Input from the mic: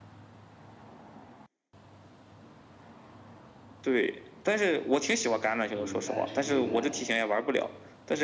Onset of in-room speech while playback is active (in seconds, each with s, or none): 5.7 s